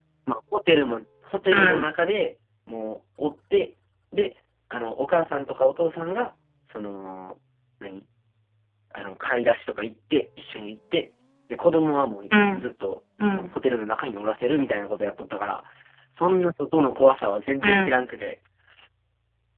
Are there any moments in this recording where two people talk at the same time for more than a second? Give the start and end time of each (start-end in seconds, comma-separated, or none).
none